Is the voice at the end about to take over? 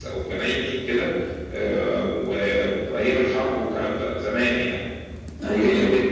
No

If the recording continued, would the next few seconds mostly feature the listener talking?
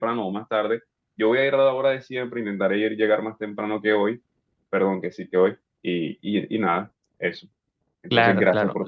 Yes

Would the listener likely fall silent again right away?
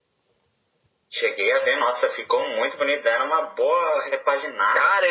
No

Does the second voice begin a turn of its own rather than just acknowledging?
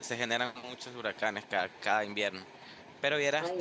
Yes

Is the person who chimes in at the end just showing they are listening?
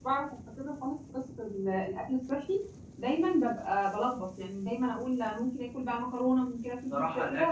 No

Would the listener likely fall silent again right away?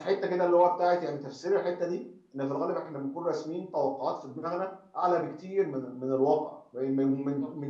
Yes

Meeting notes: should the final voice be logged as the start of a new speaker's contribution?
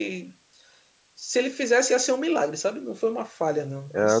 Yes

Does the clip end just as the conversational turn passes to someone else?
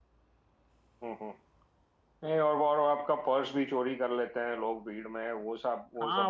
Yes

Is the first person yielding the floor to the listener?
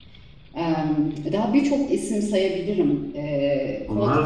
Yes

